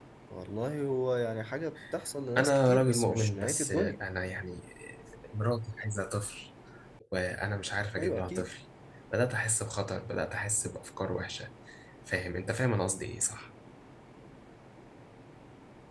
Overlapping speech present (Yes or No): Yes